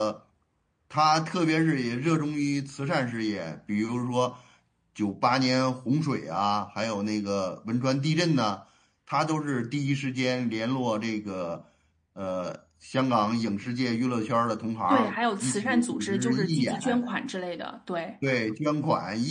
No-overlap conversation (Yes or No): No